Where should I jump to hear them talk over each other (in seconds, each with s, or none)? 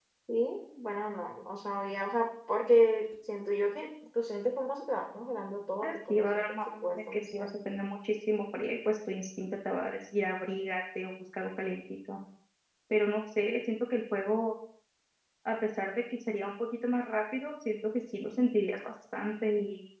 5.8 s